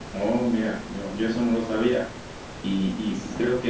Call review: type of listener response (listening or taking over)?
listening